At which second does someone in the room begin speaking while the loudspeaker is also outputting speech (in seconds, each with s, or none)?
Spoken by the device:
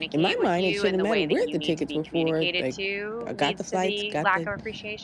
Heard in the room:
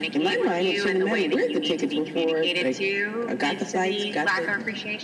none